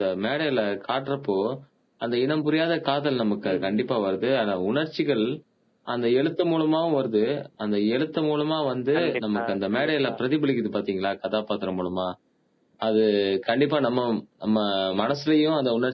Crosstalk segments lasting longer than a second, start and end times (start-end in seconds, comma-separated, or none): 9.0-10.2